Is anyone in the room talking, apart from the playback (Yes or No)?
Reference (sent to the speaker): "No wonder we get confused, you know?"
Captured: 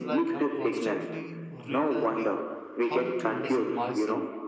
Yes